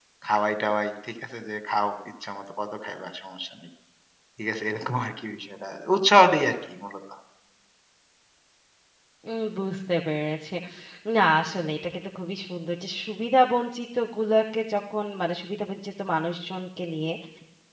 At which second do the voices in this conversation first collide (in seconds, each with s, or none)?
none